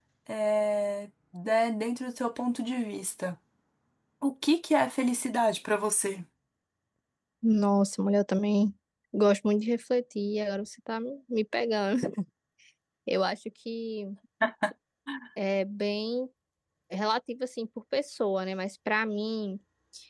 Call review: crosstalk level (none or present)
none